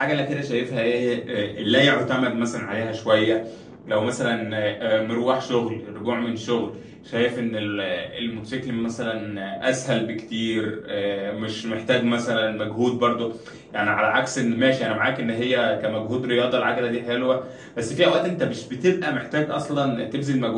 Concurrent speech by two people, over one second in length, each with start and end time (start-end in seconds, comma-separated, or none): none